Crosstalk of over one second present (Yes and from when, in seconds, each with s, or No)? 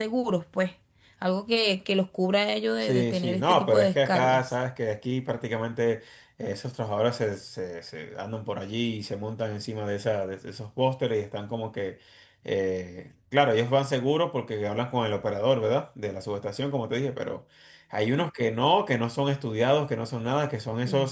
Yes, from 2.8 s